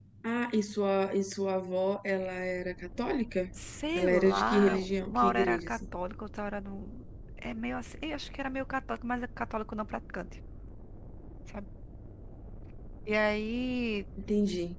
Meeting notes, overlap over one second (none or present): present